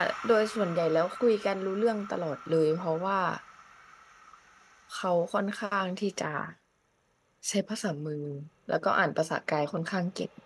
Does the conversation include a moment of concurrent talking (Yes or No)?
No